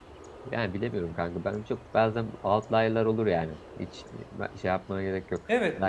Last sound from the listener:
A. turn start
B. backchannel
A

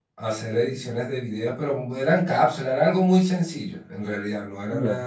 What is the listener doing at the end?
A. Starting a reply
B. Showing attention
B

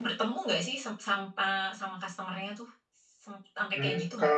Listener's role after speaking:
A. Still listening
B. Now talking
B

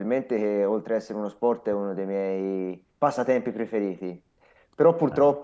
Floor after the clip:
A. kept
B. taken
A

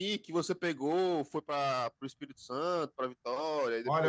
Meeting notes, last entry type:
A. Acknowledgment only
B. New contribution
B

